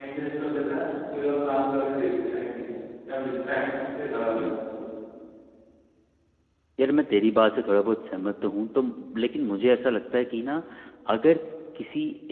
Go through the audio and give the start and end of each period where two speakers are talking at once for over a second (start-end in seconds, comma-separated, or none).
none